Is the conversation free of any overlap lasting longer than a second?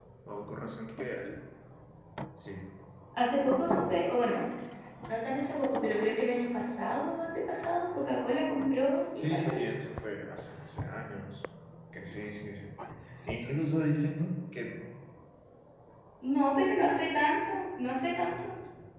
Yes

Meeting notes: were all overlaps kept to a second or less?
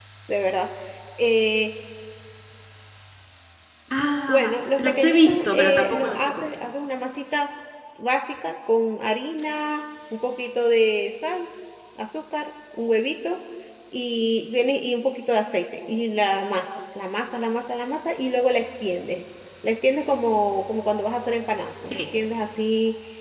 No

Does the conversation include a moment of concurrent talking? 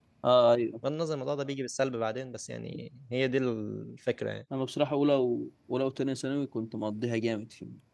No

